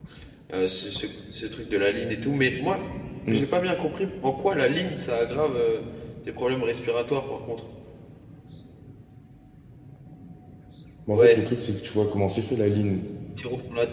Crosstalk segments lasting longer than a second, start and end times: none

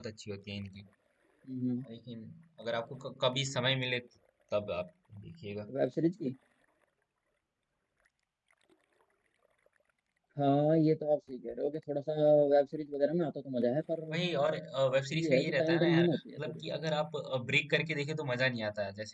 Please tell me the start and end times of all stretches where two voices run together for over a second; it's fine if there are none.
15.2-16.6

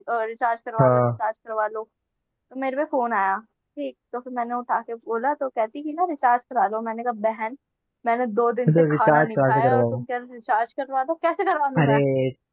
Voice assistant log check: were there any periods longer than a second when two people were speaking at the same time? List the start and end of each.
8.7-10.0

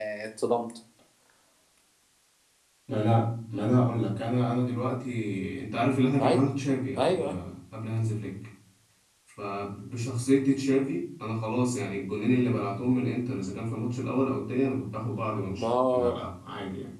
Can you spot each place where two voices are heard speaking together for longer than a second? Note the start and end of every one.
none

